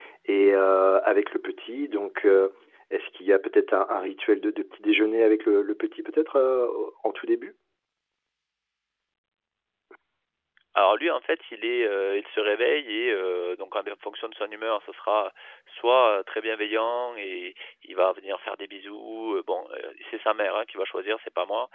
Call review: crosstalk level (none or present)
none